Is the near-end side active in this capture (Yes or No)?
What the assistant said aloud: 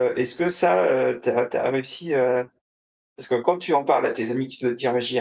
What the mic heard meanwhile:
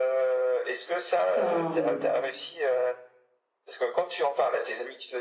Yes